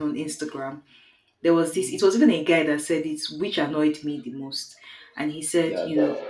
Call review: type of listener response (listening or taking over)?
listening